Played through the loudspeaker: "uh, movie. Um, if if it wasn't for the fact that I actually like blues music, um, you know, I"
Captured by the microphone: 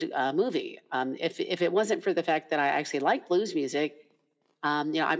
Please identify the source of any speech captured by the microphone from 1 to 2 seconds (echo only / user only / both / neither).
echo only